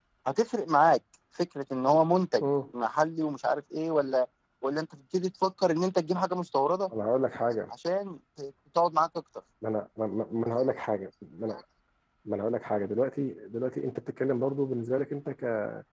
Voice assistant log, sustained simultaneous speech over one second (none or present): none